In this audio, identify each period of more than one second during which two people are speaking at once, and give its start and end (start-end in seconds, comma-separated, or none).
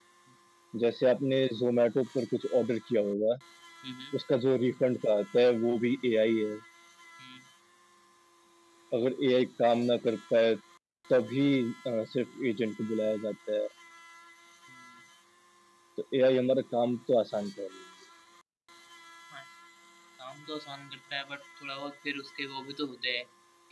none